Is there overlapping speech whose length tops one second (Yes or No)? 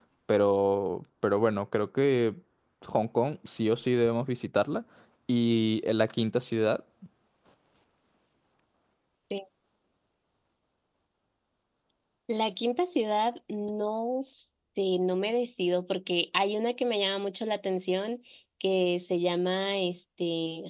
No